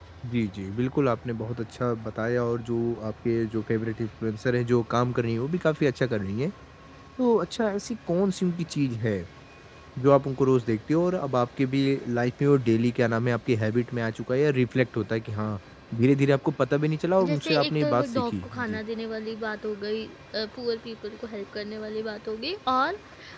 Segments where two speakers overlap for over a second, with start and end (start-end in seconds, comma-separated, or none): 17.3-18.8